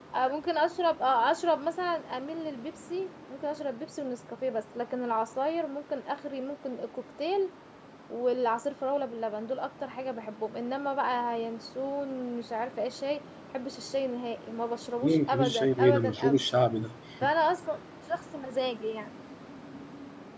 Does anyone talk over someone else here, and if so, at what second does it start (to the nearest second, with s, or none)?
15 s